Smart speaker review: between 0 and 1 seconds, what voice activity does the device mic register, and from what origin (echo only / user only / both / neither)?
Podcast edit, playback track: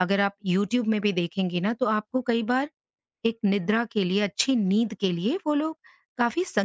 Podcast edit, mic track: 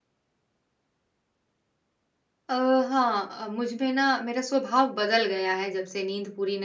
neither